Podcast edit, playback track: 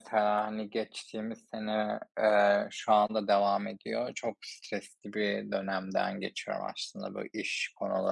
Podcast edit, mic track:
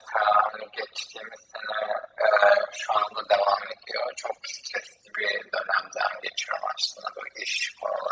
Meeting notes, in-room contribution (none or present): none